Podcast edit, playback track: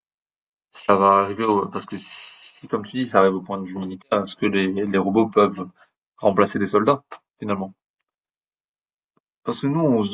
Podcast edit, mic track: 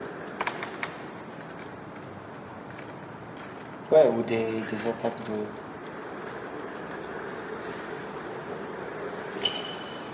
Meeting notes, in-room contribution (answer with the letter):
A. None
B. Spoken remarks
B